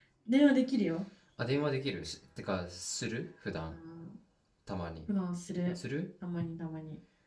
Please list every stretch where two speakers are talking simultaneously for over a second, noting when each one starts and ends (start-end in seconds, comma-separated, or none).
none